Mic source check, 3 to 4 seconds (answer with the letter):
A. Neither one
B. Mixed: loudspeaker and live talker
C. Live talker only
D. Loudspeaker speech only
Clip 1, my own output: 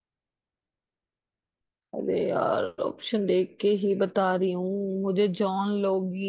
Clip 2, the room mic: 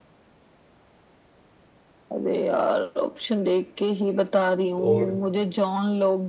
D